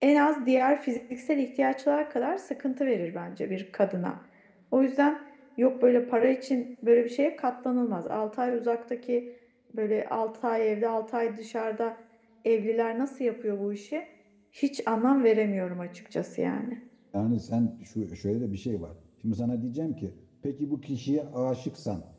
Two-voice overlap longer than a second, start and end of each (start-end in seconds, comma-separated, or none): none